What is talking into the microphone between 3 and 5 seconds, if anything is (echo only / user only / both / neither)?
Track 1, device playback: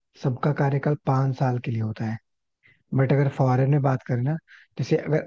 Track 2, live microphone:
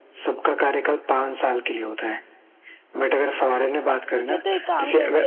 both